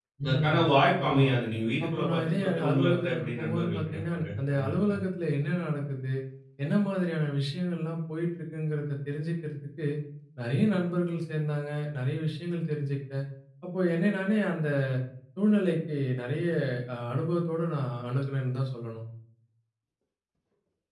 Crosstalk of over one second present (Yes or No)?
Yes